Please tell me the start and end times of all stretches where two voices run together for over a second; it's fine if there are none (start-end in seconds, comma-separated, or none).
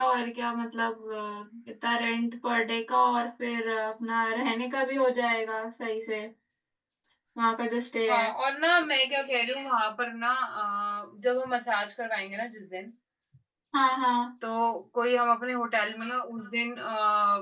none